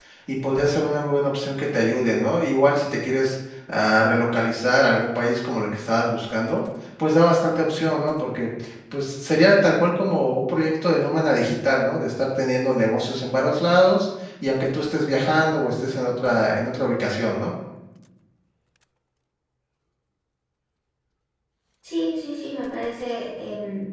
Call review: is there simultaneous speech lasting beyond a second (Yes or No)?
No